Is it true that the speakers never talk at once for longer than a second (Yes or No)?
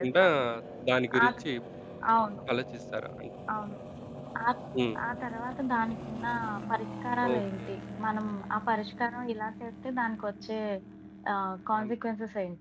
Yes